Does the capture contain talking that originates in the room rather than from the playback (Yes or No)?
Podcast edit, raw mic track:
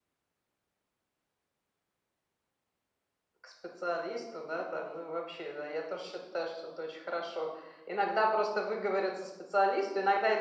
Yes